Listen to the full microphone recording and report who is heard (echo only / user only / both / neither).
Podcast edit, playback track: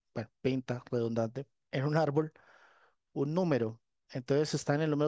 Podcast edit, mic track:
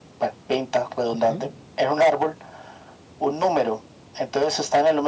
both